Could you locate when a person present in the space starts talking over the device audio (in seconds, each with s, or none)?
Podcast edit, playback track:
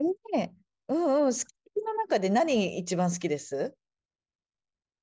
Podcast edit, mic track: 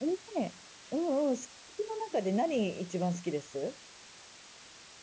none